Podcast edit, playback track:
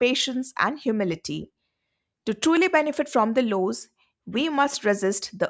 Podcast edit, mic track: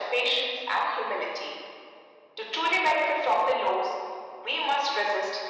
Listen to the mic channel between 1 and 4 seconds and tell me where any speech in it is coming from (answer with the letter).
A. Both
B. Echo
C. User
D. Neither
B